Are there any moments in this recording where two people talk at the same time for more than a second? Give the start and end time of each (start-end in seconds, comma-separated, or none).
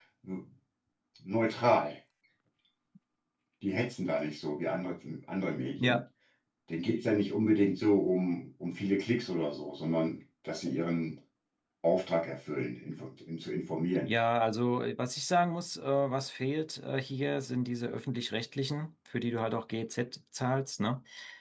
none